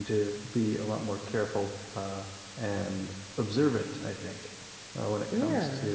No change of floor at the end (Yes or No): Yes